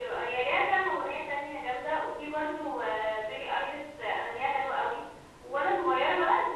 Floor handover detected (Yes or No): No